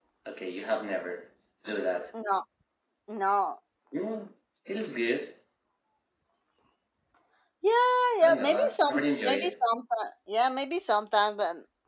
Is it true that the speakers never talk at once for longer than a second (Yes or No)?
No